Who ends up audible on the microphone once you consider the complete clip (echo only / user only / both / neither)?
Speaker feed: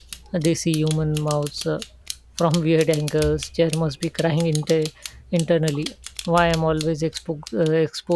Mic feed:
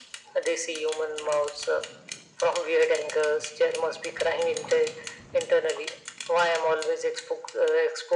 echo only